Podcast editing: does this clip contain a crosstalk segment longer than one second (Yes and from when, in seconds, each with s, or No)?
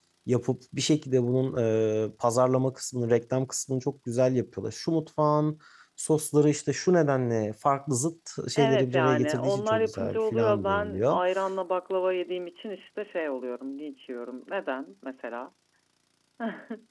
Yes, from 8.6 s